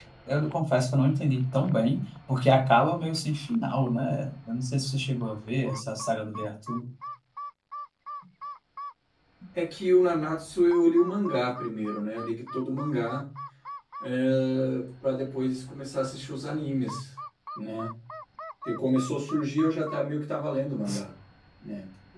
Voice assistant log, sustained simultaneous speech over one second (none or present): none